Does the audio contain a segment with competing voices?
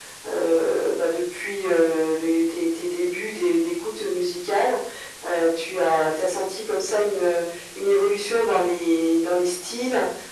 No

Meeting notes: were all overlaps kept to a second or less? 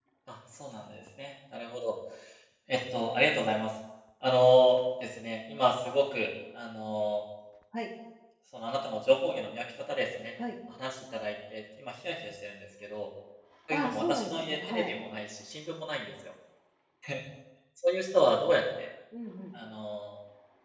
No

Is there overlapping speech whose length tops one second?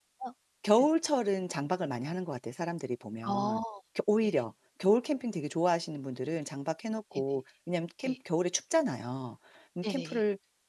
No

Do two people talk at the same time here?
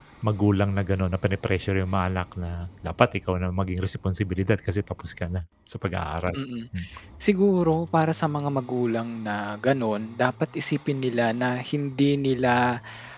No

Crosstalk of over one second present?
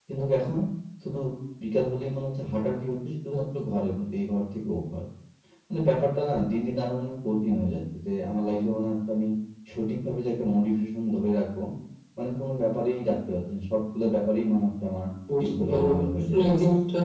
Yes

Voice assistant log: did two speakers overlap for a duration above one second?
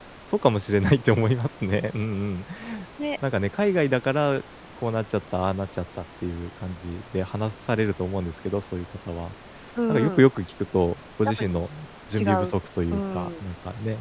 No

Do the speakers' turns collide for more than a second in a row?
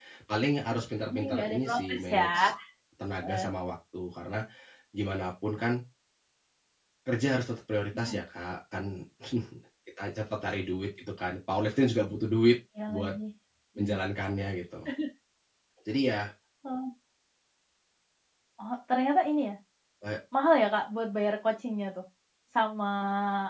Yes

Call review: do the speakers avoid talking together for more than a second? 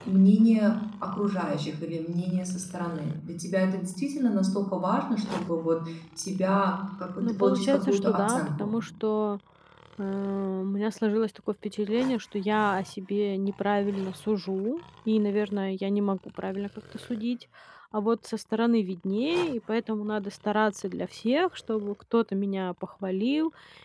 No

